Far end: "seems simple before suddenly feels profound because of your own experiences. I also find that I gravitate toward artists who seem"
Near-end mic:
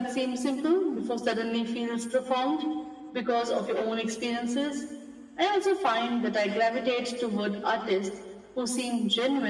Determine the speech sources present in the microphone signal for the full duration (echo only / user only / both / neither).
echo only